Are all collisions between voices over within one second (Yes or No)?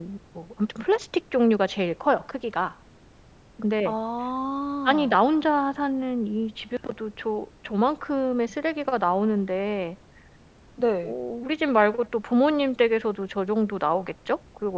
Yes